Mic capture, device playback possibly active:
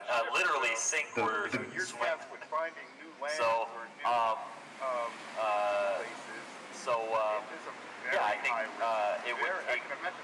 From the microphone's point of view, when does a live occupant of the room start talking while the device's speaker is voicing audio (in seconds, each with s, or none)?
1.1 s